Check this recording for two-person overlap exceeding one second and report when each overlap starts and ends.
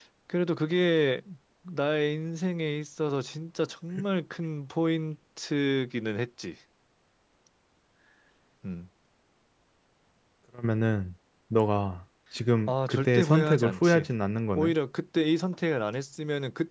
12.7-14.0

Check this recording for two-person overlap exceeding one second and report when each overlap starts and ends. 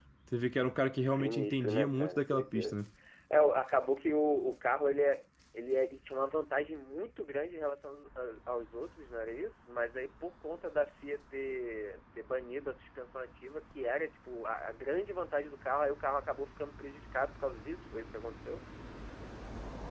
1.1-2.8

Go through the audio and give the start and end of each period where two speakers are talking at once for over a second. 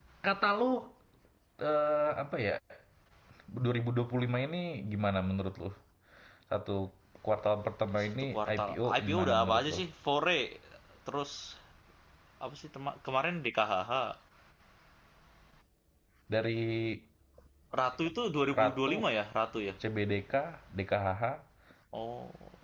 8.0-9.8

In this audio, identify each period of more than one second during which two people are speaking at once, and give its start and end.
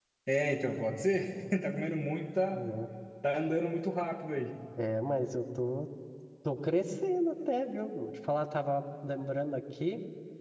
none

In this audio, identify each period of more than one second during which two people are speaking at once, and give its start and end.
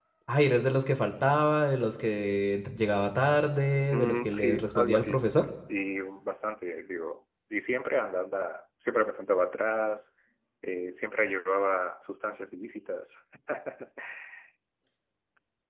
3.9-5.3

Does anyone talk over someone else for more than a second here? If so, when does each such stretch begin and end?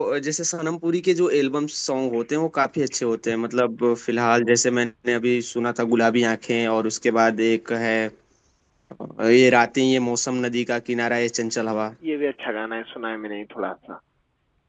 none

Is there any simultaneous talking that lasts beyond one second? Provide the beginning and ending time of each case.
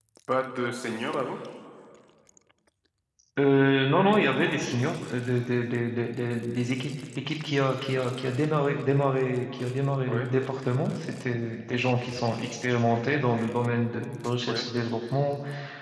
none

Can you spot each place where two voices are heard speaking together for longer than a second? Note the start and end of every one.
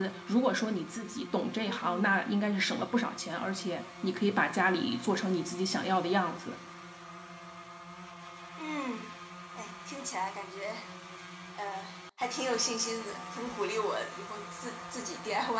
none

